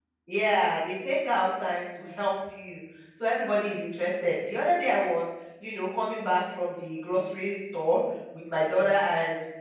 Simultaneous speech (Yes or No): No